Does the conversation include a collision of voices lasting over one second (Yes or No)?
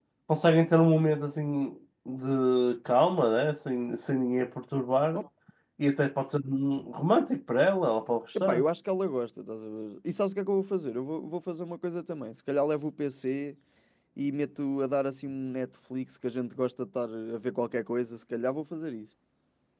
No